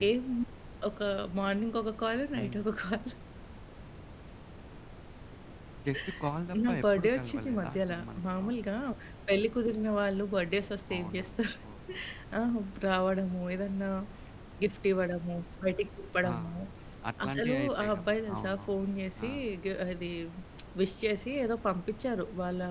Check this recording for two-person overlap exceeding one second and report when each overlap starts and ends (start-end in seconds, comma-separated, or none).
6.7-8.5, 17.3-18.6